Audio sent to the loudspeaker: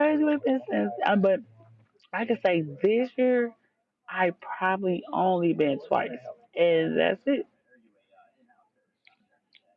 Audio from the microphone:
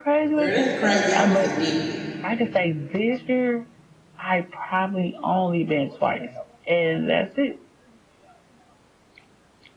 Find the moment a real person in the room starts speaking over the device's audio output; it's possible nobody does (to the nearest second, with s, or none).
0 s